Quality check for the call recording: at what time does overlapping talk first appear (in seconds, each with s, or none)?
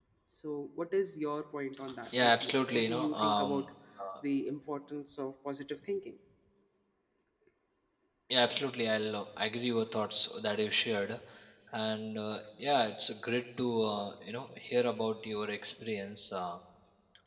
2.2 s